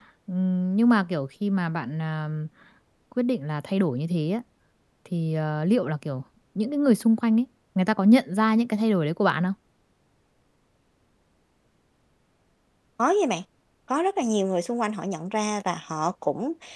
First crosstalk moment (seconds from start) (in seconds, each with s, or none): none